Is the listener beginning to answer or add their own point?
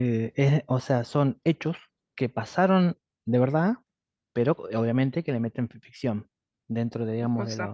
No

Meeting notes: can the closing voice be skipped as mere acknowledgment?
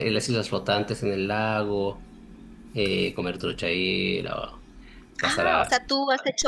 No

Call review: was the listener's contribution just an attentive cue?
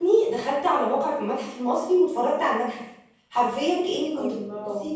Yes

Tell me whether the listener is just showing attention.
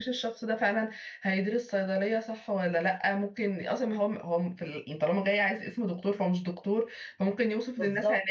Yes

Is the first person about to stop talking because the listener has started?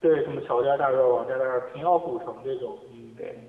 Yes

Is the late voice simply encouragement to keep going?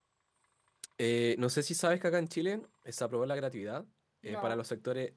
Yes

